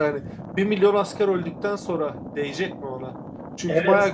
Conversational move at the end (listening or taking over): listening